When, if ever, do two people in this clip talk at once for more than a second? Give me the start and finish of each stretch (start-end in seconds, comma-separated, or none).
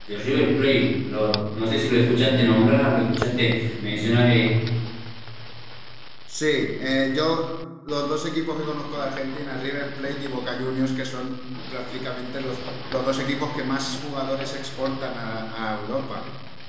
none